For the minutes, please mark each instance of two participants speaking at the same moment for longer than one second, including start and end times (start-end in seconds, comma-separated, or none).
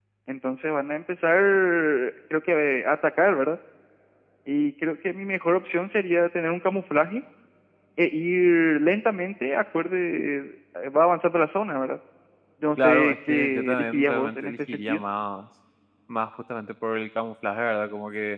12.8-15.0